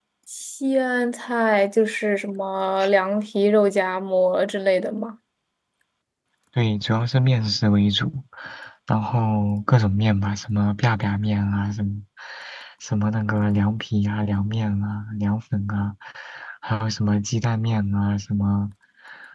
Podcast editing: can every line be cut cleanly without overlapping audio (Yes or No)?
Yes